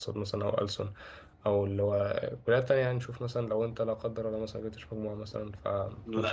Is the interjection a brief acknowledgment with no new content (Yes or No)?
No